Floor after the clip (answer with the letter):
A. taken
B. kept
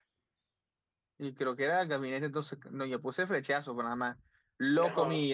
B